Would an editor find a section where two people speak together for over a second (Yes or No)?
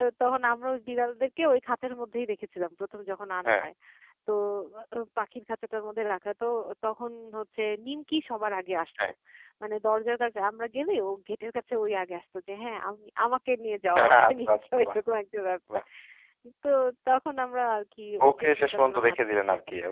Yes